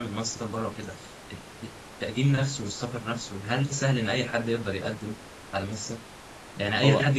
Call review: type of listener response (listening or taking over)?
listening